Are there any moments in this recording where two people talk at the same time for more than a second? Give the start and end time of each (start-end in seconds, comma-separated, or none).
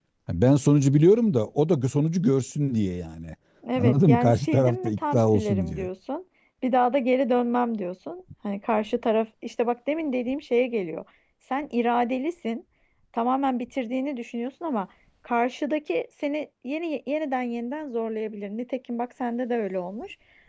3.8-5.9